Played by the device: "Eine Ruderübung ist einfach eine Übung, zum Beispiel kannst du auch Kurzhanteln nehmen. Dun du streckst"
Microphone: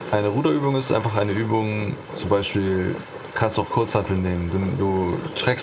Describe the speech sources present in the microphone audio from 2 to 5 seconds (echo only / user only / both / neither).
echo only